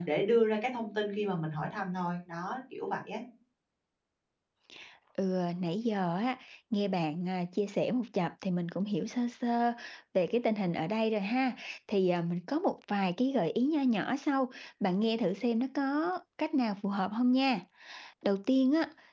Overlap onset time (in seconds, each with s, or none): none